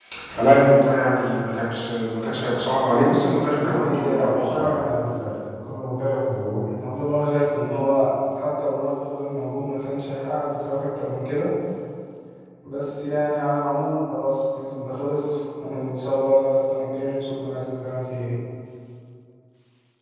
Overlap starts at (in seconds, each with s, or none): 3.5 s